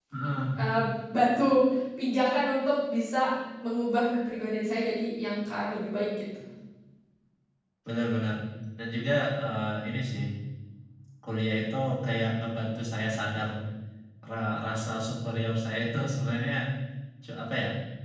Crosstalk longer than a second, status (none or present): none